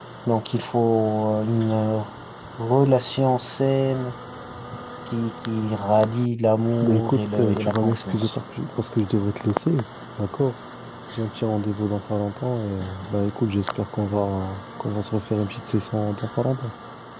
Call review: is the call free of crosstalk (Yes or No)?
No